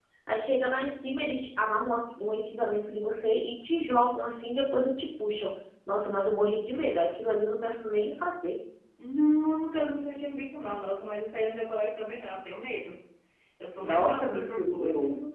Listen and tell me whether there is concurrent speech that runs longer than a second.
Yes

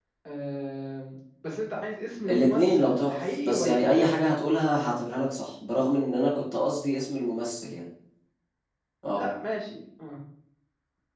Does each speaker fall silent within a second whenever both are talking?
No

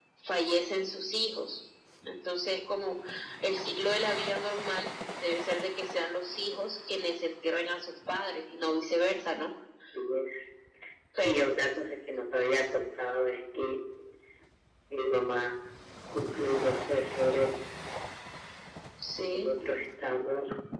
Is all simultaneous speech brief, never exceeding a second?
Yes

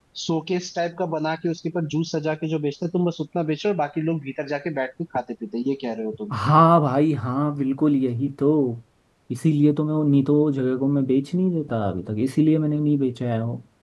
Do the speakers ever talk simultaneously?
No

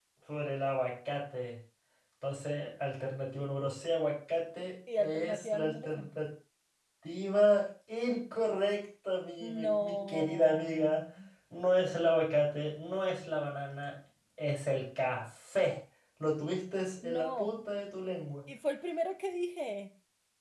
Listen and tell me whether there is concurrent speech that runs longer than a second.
Yes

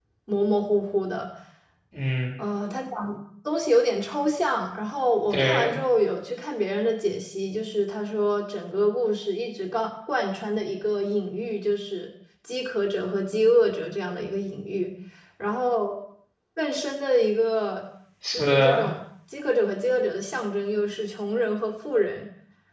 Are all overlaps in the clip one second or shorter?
Yes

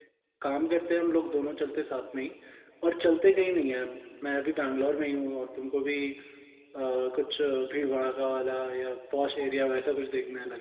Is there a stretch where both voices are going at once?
No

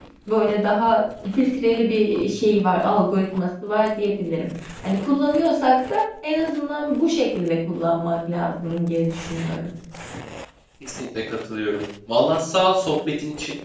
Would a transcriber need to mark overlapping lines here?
No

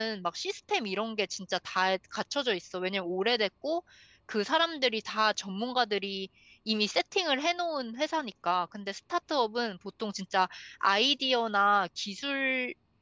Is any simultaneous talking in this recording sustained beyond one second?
No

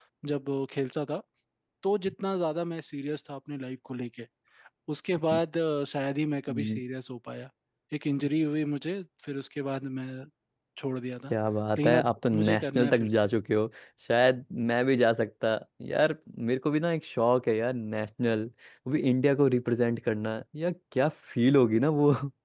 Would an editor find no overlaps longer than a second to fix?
No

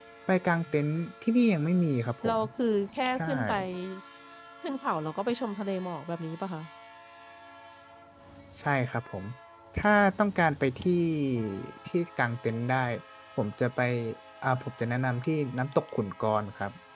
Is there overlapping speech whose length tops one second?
No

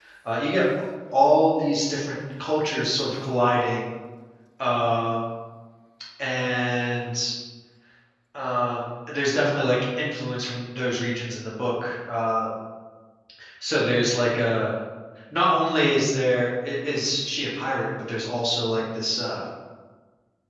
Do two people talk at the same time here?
No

